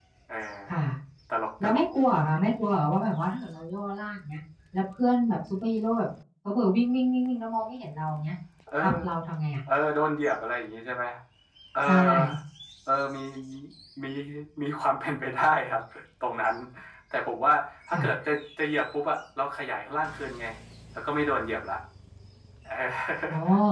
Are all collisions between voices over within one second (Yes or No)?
Yes